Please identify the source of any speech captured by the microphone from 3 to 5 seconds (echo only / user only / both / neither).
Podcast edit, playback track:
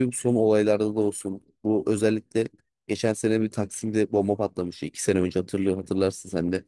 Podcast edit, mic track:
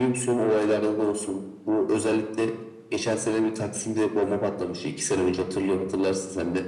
echo only